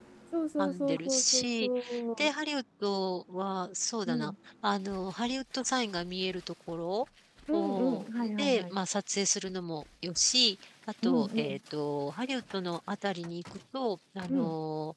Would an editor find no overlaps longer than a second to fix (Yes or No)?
No